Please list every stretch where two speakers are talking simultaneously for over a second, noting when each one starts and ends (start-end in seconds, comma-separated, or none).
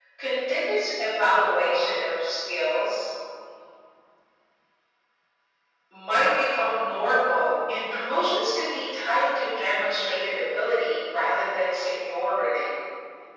none